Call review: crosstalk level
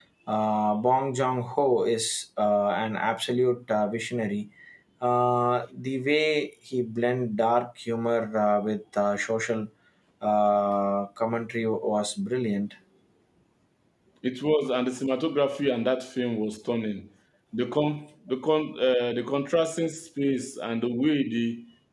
none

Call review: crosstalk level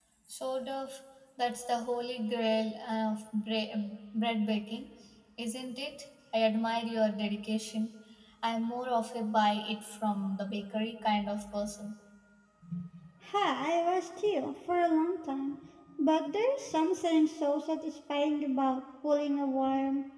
none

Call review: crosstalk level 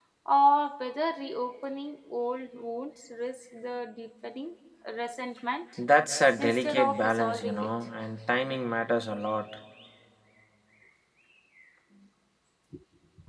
present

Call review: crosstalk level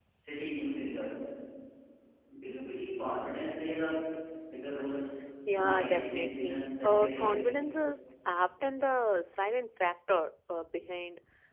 present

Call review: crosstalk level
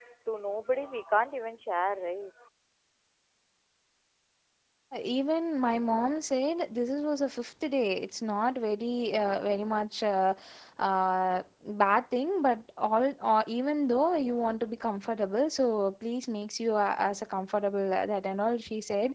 none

